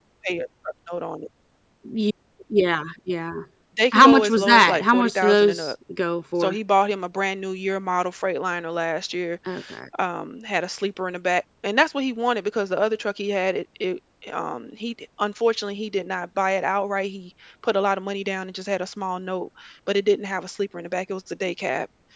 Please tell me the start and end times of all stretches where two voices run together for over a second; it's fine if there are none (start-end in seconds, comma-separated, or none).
3.9-5.7